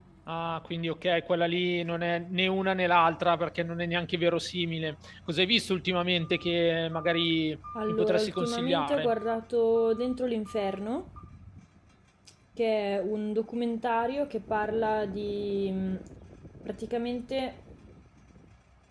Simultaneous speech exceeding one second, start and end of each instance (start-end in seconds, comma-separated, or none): 7.9-9.1